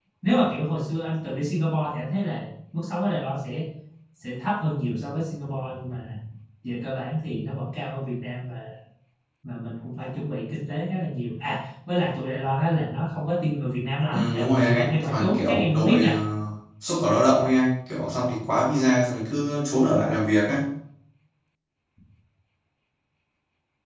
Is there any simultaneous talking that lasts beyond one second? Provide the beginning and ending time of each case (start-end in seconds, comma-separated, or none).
14.1-16.1